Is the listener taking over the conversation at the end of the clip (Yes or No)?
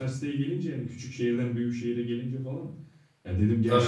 No